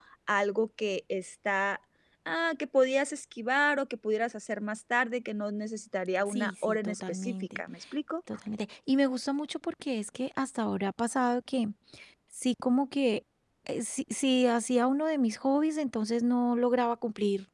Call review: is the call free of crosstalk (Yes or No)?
No